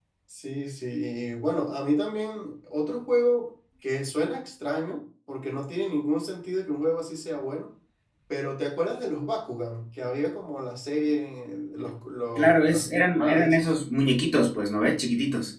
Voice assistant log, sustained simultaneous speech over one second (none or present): present